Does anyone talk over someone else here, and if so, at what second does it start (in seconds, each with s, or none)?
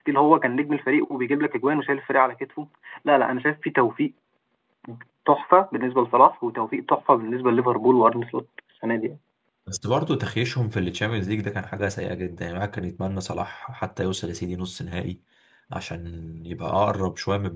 none